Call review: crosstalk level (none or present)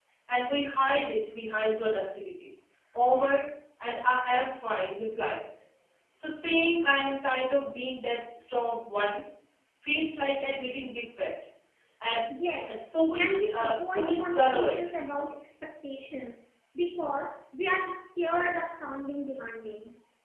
present